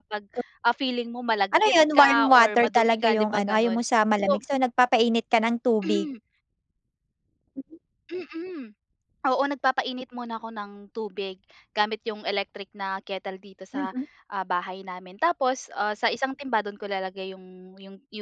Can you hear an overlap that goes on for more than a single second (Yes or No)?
Yes